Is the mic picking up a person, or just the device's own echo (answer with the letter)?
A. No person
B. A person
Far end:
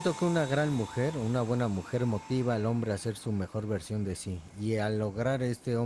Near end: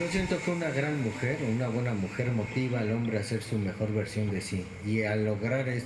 A